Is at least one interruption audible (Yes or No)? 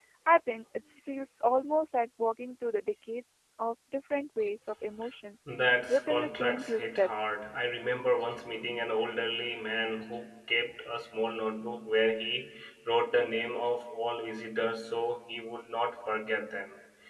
Yes